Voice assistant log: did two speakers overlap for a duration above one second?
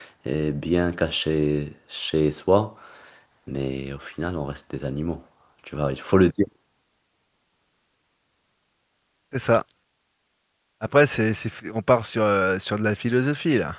No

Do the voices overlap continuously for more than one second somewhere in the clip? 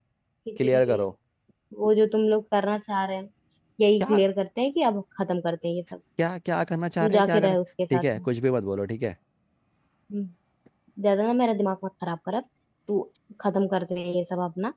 No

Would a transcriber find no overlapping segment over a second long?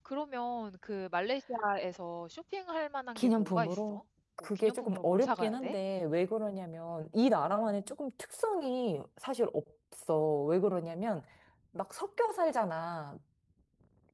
No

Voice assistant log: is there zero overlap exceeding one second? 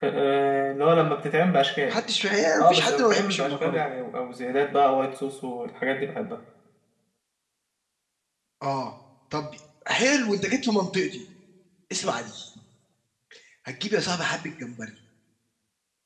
No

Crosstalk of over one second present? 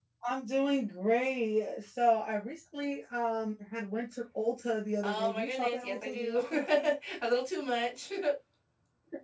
Yes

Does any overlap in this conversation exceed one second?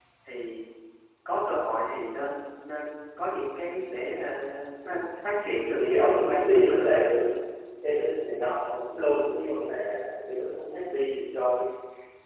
Yes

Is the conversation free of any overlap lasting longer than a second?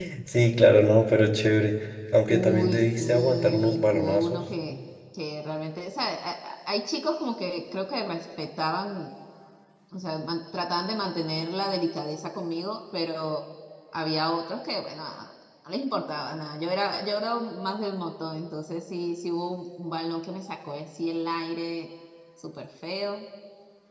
No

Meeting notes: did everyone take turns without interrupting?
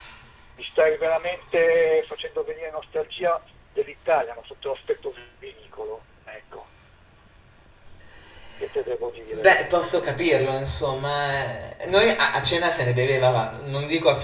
No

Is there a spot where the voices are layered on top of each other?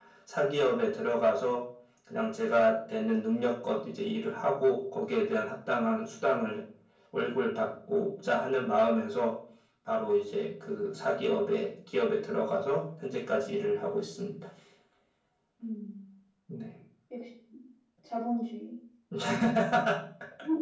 No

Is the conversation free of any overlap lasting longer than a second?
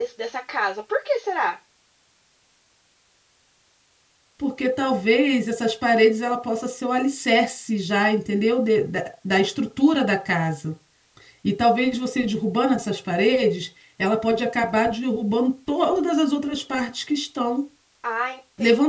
Yes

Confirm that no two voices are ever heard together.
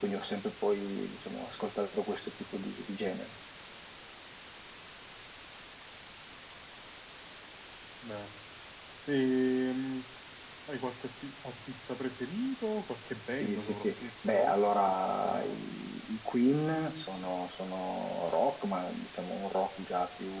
No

